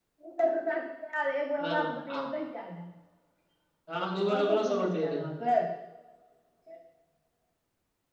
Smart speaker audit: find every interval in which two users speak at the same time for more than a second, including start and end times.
3.9-5.2

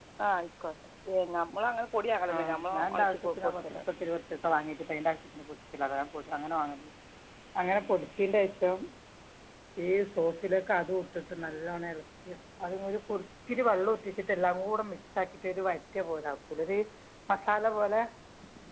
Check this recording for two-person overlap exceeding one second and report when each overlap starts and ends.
2.3-3.8

